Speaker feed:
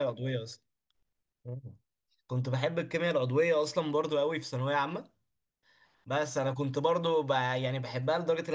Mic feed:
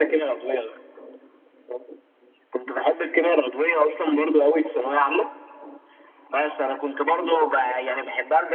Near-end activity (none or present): none